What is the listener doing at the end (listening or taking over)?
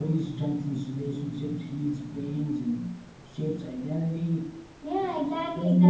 taking over